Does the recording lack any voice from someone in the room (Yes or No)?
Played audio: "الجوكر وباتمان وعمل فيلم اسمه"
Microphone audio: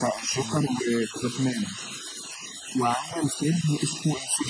No